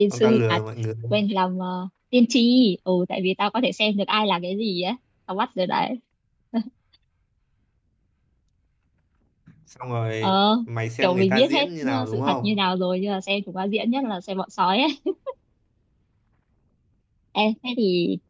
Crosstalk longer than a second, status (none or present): present